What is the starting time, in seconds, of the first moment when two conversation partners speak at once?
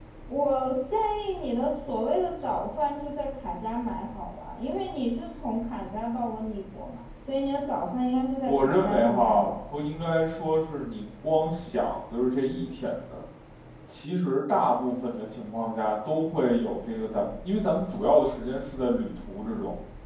8.4 s

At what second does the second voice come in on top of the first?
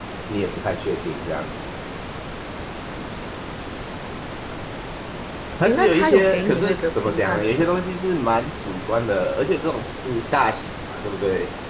5.7 s

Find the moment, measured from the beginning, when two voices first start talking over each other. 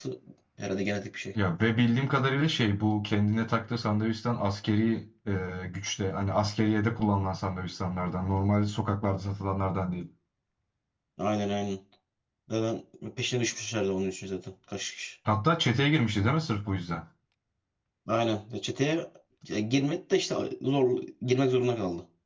none

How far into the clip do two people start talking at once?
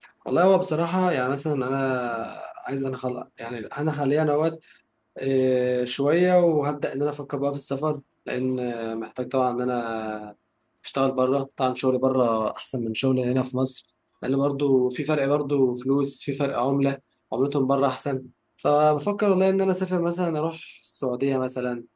none

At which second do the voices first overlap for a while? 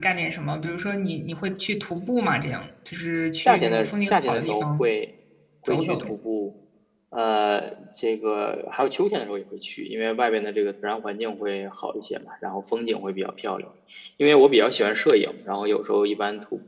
3.5 s

